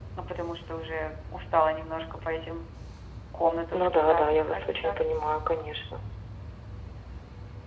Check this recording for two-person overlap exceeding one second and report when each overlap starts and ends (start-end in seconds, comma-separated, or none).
3.8-5.0